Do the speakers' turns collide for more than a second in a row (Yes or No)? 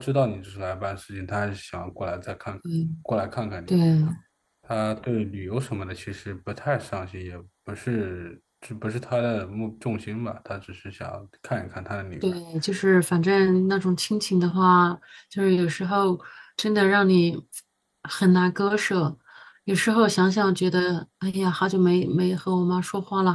No